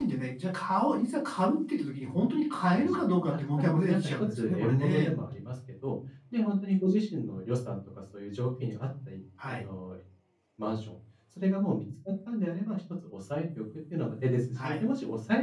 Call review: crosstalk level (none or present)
present